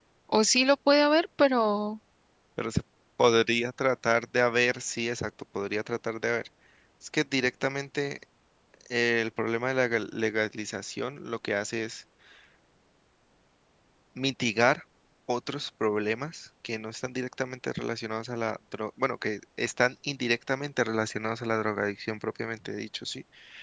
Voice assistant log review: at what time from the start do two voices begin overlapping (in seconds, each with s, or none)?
none